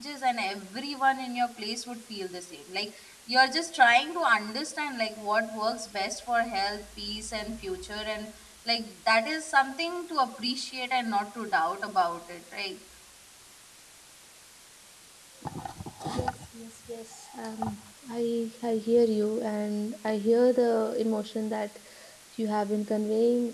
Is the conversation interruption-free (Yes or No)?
Yes